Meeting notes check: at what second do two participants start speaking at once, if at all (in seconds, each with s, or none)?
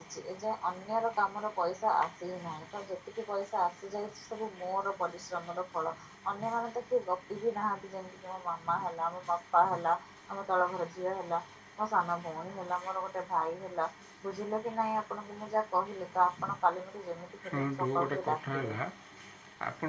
17.4 s